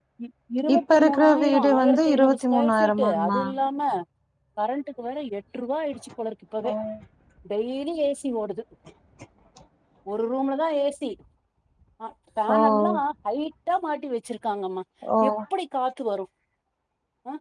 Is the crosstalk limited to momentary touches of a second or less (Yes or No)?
No